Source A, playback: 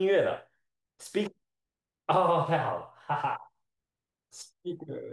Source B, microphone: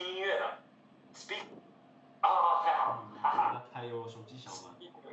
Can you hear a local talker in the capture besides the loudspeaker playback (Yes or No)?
Yes